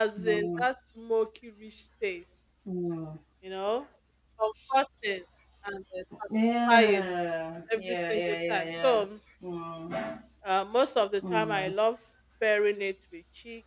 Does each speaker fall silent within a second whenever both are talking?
No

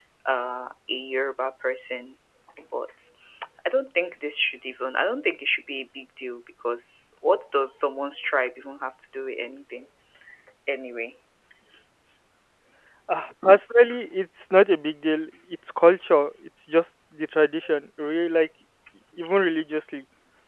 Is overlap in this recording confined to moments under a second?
Yes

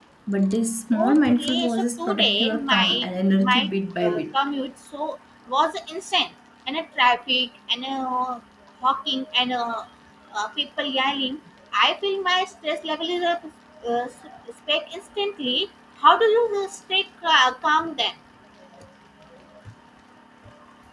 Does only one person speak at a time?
No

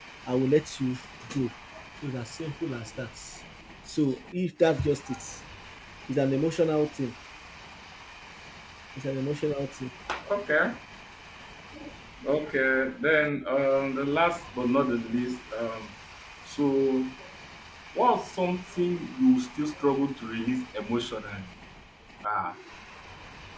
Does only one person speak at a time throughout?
Yes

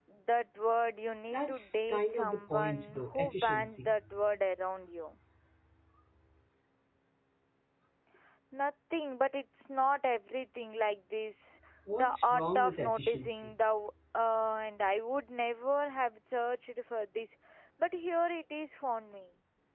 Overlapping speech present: Yes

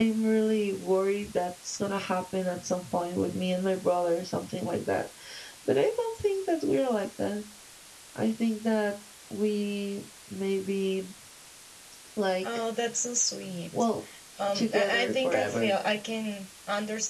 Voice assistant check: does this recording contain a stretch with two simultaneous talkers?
Yes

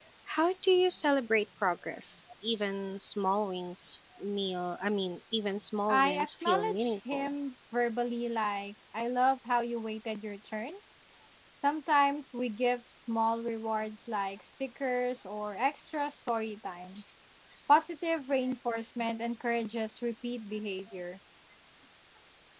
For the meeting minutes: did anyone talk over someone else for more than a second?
Yes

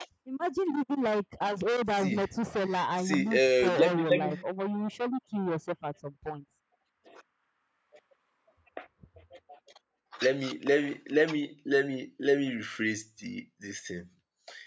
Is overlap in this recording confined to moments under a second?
No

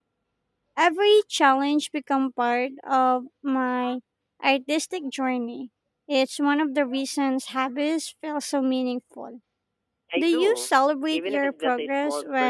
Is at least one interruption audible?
Yes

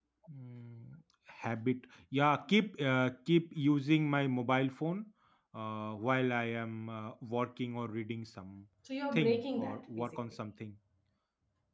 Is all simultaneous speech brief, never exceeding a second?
No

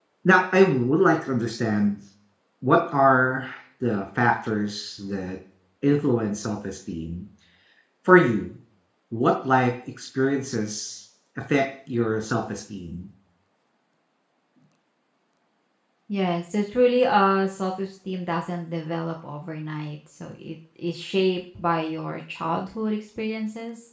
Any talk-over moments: No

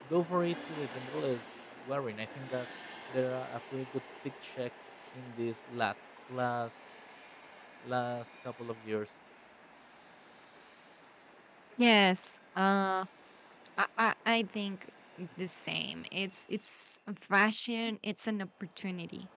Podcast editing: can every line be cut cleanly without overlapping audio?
Yes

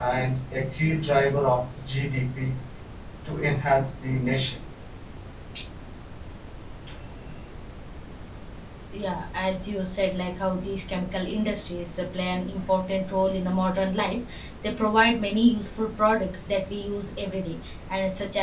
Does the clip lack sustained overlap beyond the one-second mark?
Yes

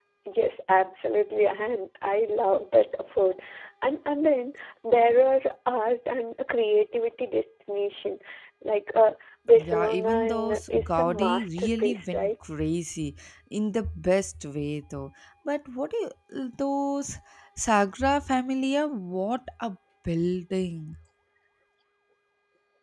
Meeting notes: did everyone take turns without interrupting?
No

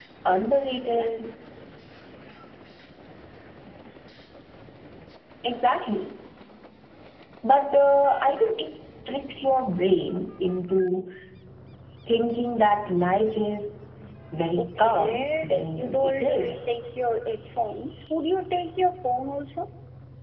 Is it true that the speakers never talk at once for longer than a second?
No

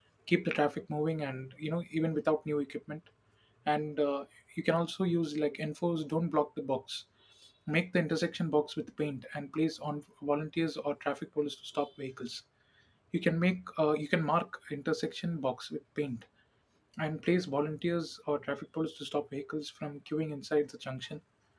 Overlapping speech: No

